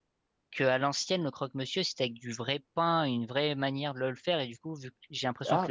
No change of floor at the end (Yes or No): Yes